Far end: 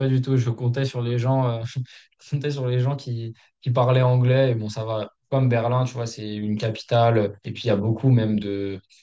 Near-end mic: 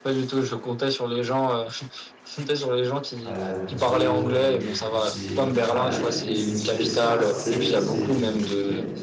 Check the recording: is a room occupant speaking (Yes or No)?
Yes